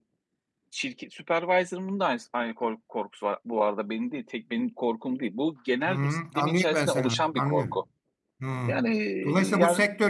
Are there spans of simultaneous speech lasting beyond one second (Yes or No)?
Yes